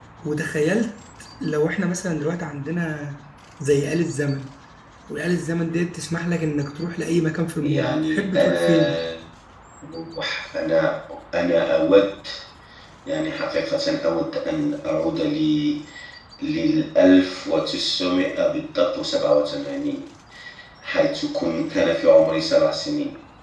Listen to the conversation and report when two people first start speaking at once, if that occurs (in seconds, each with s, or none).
7.6 s